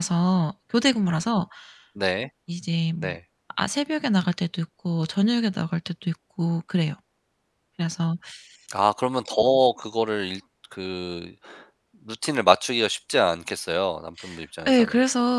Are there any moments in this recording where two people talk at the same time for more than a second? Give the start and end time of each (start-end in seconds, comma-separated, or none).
none